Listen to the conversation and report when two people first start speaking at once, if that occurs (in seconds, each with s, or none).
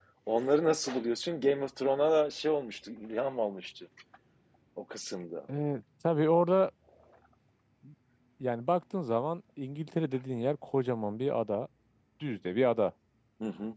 none